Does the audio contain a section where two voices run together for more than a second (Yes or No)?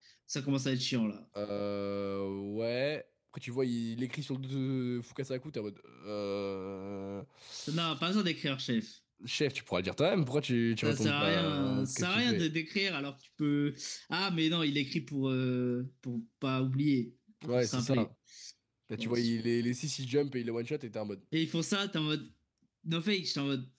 Yes